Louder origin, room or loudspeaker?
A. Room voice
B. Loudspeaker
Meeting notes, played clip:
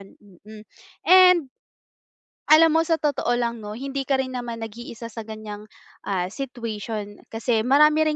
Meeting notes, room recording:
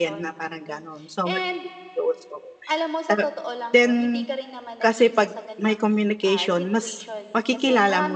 A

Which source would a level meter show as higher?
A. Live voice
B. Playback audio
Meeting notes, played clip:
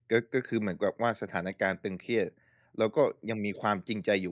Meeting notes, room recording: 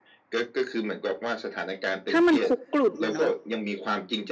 A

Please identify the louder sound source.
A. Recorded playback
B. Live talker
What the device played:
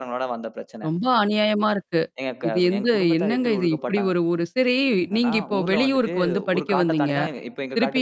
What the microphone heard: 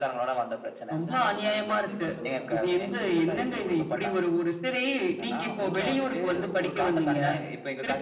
A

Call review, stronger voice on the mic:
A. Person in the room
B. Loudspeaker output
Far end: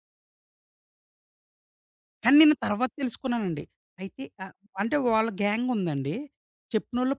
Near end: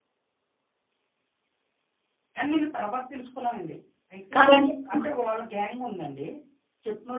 A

